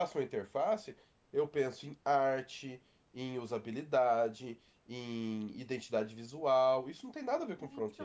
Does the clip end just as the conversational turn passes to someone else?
Yes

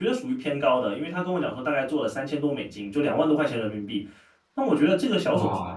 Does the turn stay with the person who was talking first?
No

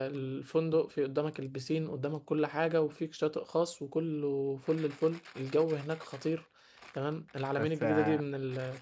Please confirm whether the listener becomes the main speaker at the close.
No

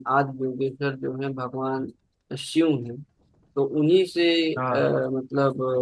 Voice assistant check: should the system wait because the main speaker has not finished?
Yes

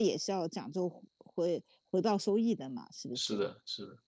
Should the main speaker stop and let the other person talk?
Yes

